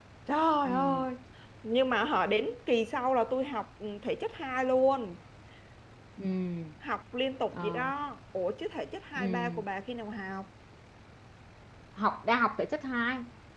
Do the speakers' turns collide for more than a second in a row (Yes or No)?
No